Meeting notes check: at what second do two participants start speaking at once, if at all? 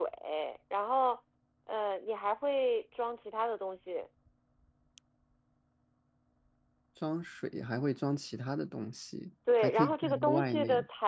9.5 s

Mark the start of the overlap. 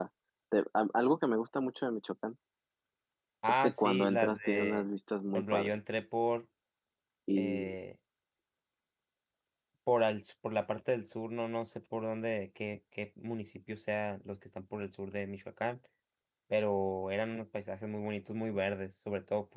3.5 s

